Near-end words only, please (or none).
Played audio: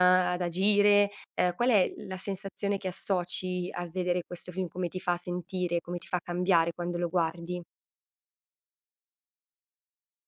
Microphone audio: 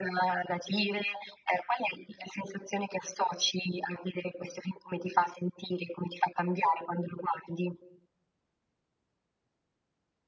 none